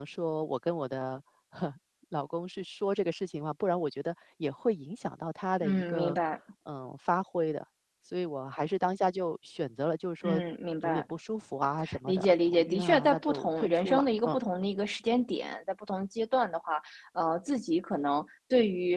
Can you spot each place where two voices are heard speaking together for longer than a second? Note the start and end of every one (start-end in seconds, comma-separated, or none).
12.1-14.4